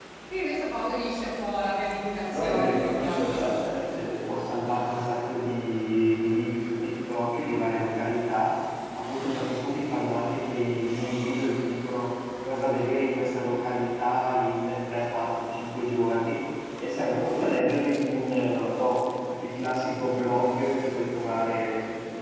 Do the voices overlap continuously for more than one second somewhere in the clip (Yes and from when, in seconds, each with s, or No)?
Yes, from 2.3 s